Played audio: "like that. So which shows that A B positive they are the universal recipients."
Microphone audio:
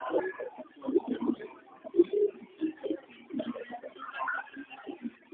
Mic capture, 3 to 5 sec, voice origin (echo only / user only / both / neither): echo only